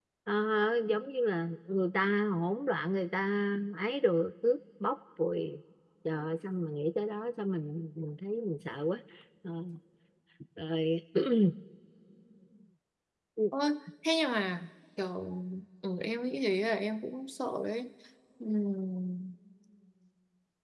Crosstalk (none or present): none